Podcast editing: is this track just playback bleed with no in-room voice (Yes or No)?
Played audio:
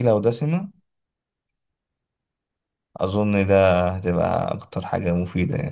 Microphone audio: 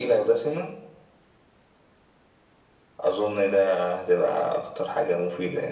Yes